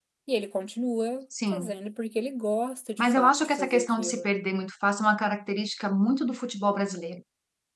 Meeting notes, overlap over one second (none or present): present